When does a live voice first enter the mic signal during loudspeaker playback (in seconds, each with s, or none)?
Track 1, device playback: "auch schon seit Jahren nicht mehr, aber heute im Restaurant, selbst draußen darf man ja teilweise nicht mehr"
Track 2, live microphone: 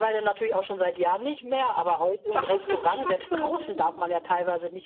2.3 s